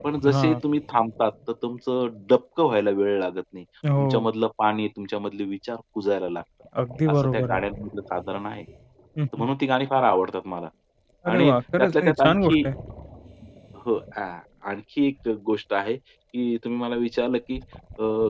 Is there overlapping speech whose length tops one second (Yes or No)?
Yes